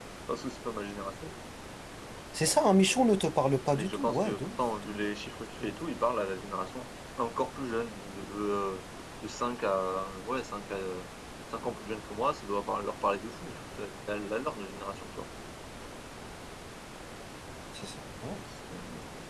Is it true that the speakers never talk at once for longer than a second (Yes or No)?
No